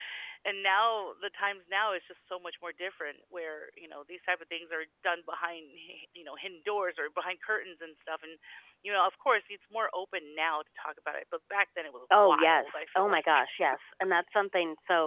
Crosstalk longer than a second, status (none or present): present